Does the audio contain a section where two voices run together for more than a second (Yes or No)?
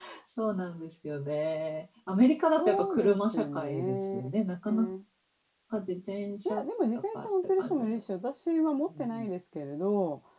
Yes